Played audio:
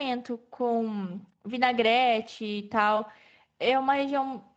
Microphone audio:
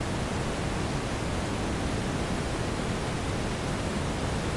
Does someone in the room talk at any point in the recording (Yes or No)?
No